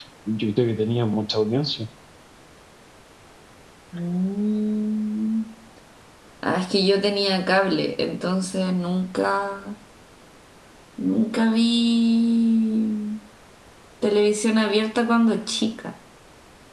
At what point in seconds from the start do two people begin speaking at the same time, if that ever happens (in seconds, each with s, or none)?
none